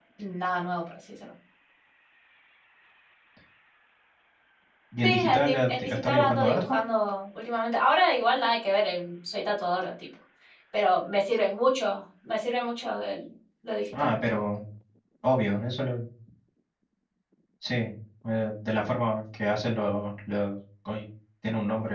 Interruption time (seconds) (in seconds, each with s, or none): 5.0 s